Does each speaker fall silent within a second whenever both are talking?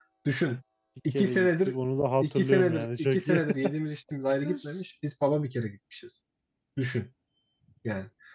No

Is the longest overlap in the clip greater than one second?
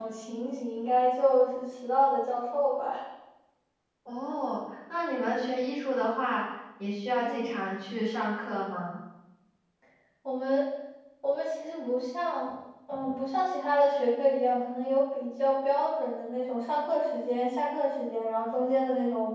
No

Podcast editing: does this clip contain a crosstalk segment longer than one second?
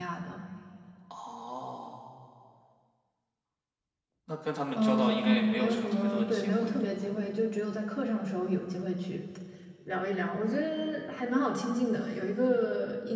Yes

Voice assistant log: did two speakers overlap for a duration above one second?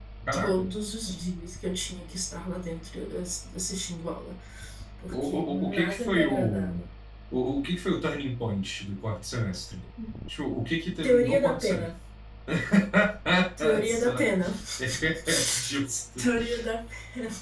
Yes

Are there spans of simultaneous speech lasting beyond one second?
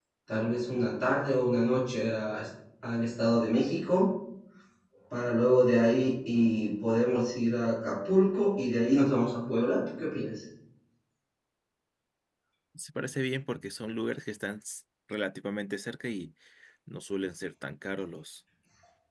No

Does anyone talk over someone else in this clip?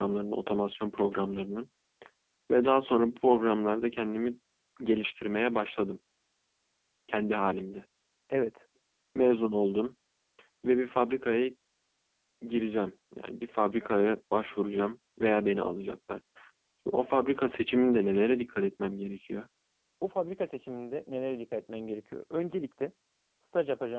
No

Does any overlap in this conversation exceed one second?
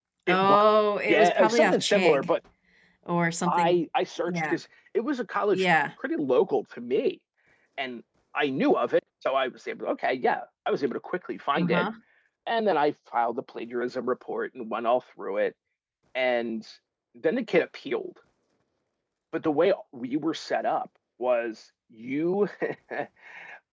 Yes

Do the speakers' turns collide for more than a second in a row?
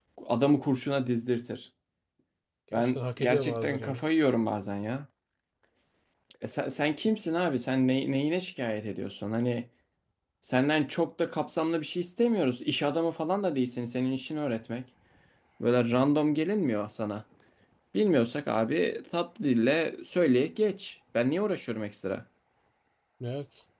Yes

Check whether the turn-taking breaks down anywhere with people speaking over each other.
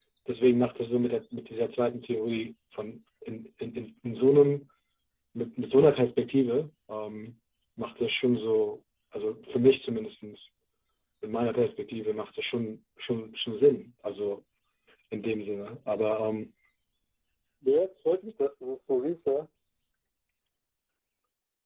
No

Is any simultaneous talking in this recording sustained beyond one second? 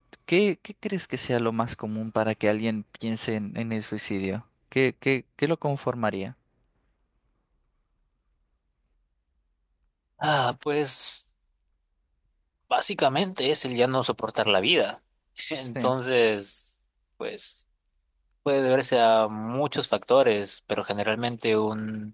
No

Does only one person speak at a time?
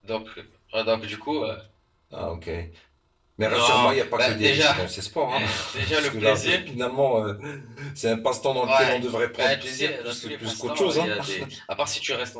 No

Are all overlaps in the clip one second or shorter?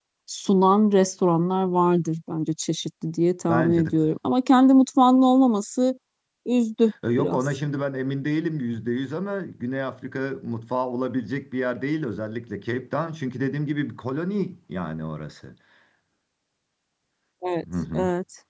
Yes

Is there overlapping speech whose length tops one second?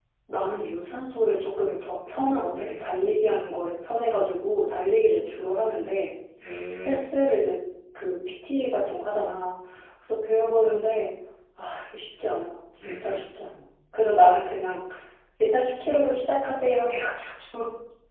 No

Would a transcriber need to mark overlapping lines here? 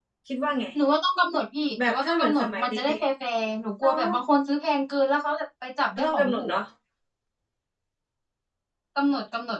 Yes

